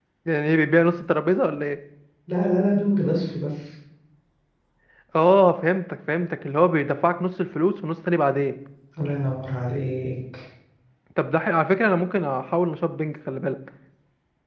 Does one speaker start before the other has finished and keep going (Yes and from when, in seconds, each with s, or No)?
No